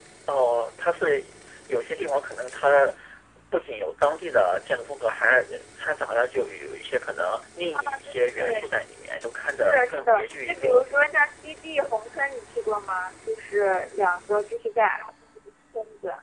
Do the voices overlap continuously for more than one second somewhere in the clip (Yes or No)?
Yes